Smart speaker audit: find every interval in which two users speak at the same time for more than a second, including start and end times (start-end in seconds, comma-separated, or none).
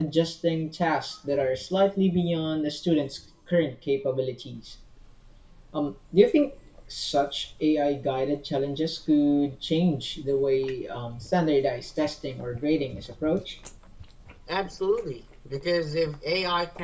none